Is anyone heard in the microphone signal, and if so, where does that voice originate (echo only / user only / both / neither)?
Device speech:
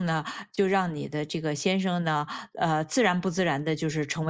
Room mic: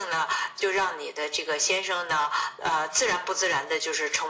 echo only